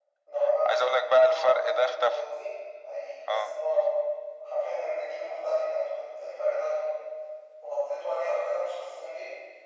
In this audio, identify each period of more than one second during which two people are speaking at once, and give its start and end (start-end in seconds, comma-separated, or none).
0.7-2.2